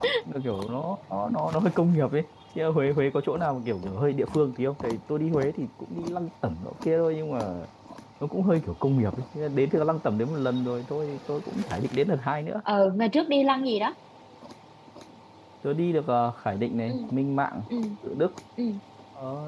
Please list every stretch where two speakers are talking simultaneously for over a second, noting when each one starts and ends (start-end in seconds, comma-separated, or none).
none